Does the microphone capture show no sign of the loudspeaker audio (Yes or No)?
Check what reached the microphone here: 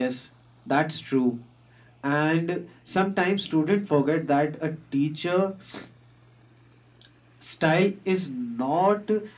No